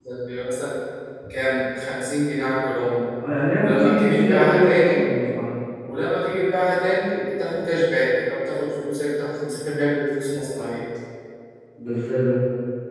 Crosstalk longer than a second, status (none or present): present